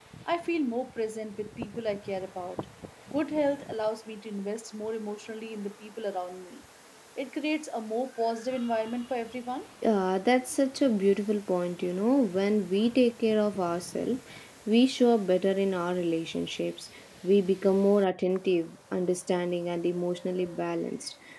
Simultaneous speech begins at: none

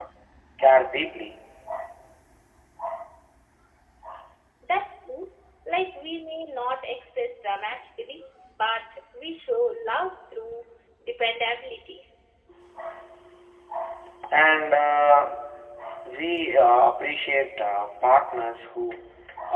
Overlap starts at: none

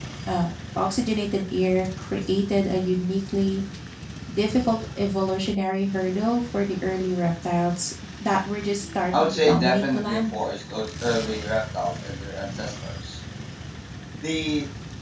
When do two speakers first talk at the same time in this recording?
9.1 s

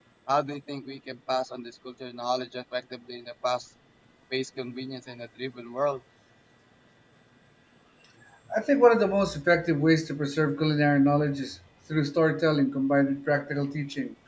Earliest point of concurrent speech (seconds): none

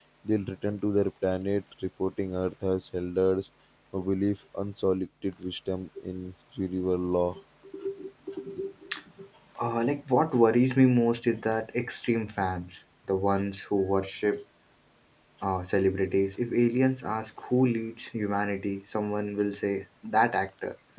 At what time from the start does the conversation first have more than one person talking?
none

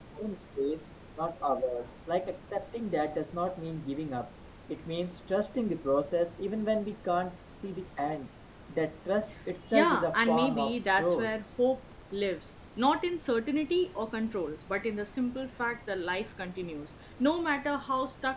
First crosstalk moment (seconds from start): 9.7 s

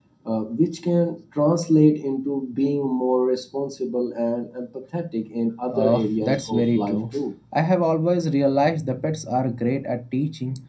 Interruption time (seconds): 5.7 s

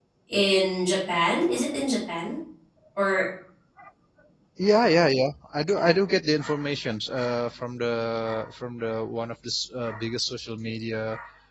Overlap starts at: none

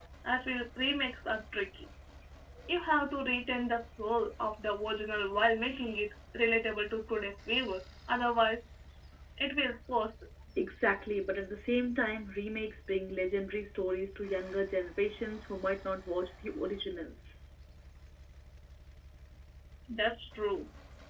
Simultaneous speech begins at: none

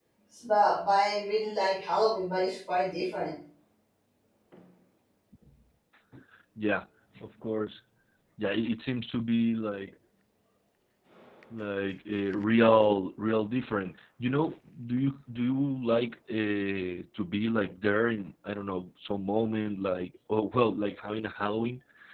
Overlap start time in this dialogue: none

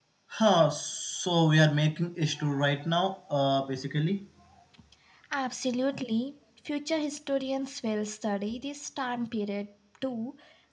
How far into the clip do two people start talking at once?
none

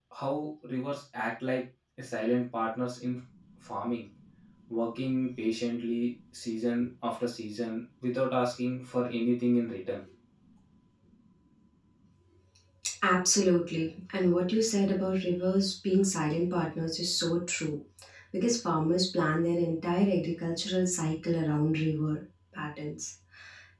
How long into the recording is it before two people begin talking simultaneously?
none

